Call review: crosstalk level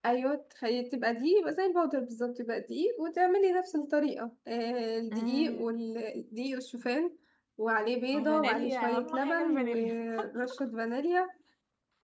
present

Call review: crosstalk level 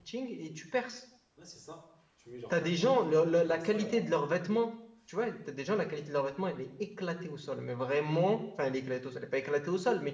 present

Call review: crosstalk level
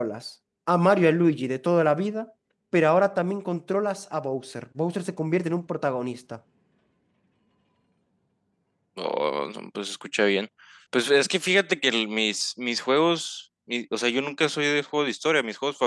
none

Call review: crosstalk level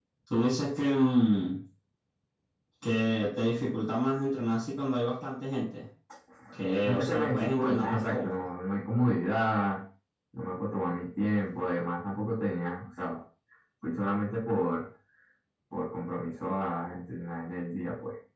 present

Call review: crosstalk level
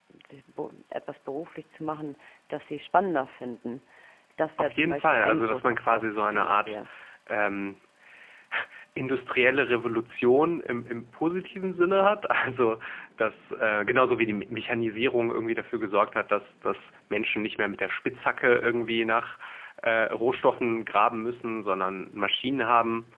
present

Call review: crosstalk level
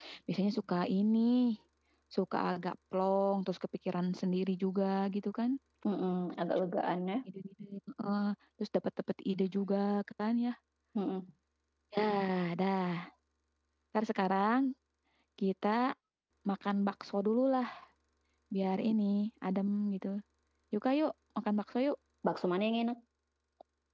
none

